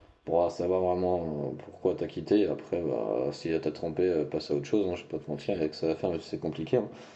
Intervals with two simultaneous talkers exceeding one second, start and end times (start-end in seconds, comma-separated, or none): none